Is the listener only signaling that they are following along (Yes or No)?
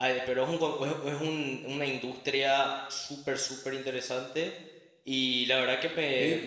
Yes